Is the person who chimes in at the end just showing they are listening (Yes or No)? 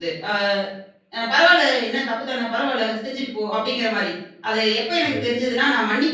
Yes